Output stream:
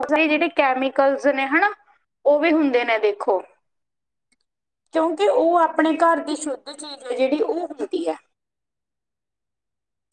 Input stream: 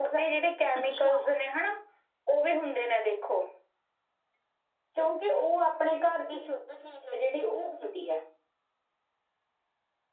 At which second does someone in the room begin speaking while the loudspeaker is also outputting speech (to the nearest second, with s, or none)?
1 s